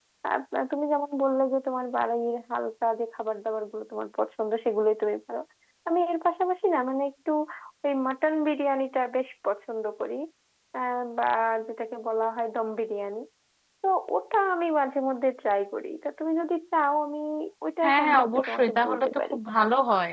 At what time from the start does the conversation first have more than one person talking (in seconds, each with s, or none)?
17.8 s